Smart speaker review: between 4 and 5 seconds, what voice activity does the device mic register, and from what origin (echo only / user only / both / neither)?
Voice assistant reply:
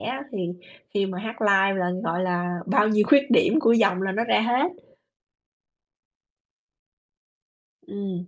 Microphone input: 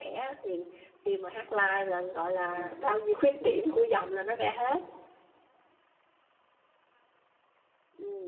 echo only